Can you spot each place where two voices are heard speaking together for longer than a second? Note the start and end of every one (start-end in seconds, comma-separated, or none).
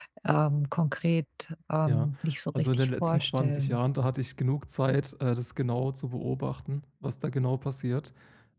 2.5-3.8